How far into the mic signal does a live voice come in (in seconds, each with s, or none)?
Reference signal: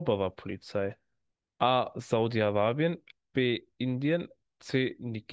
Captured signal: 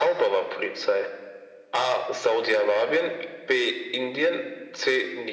none